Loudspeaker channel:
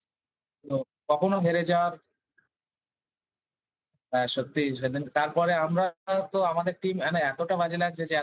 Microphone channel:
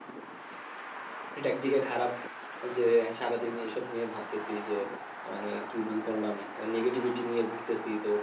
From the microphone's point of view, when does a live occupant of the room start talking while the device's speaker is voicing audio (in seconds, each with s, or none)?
1.4 s